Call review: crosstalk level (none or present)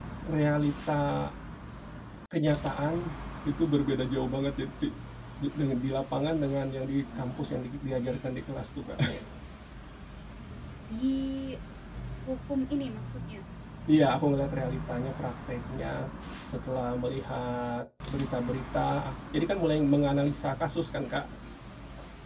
none